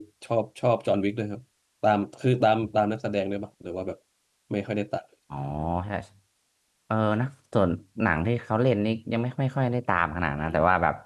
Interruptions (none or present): none